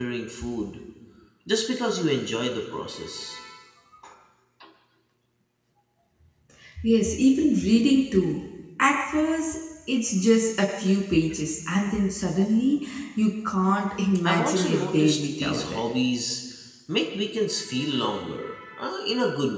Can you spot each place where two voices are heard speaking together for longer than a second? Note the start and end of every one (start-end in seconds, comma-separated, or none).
14.2-15.8